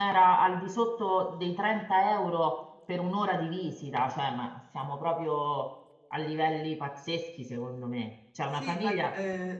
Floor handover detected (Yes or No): Yes